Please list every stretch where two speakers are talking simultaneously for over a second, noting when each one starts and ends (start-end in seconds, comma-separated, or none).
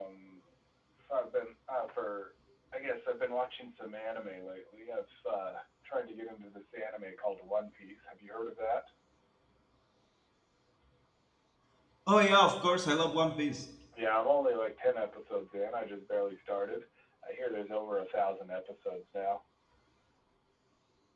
none